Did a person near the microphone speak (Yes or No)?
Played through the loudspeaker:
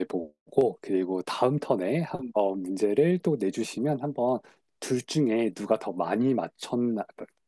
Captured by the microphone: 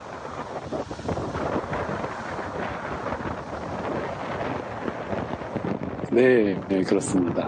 Yes